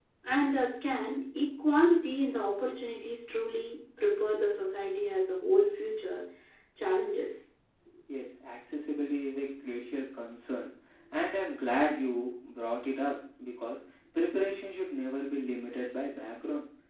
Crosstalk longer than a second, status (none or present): none